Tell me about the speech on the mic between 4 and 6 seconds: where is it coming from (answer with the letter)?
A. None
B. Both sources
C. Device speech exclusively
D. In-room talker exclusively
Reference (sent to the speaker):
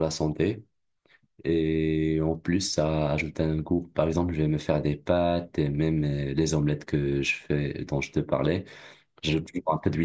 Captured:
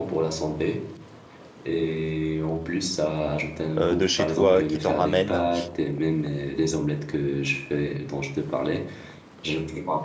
B